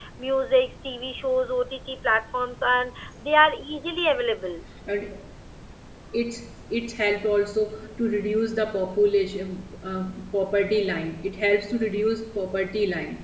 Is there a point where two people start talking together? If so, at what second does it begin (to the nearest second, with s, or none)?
none